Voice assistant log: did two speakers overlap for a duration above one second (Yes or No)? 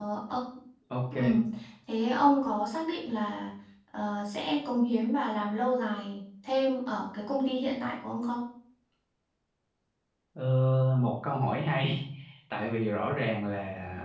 No